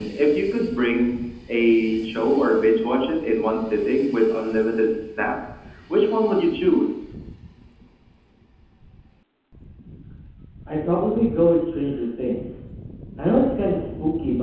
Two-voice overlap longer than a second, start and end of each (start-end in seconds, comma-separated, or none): none